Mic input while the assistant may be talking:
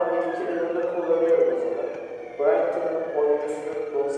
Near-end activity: none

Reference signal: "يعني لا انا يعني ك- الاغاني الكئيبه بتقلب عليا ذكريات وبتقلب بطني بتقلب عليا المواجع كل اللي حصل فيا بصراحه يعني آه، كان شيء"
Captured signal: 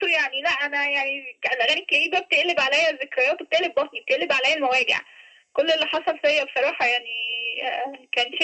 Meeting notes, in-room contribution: none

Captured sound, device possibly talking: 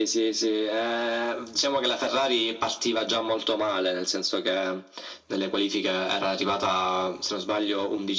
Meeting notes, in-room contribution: none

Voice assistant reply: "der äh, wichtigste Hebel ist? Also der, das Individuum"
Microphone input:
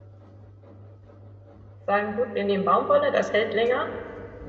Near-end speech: present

